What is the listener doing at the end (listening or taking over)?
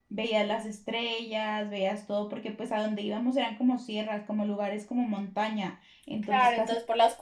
taking over